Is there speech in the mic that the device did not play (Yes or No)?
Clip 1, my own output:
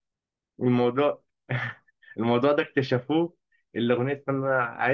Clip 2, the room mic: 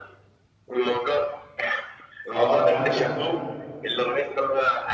Yes